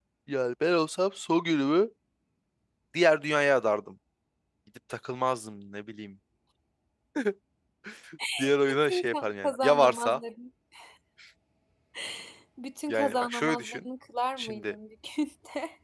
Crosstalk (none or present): present